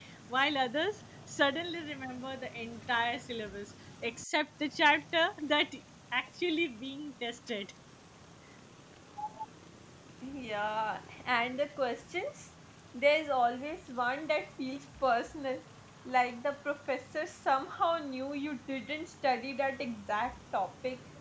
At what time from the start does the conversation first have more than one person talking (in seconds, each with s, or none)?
none